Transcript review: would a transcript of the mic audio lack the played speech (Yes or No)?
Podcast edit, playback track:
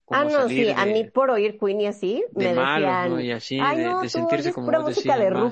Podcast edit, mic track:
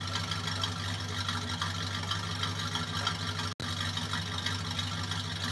Yes